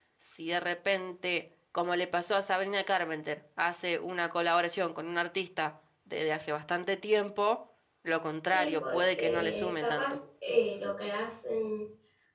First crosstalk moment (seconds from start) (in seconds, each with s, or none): 8.5 s